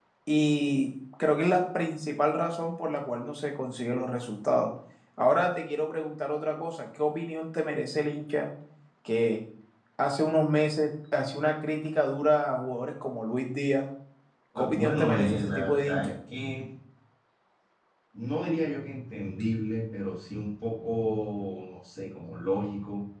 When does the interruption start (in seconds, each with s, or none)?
14.6 s